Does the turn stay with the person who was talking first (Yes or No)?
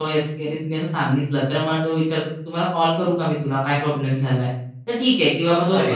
Yes